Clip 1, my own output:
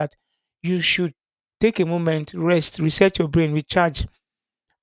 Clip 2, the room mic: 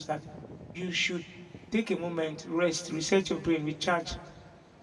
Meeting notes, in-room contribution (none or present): none